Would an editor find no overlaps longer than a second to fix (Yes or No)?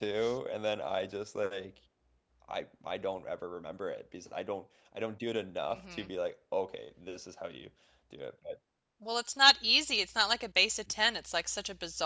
Yes